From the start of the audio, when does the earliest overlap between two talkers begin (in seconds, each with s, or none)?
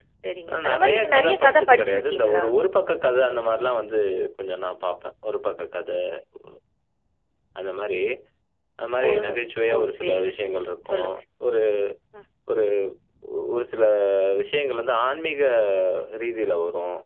0.5 s